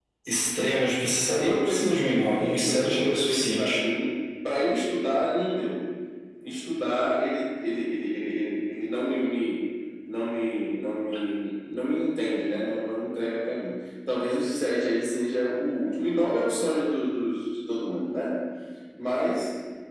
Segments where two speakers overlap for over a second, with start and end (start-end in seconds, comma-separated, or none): 1.4-3.8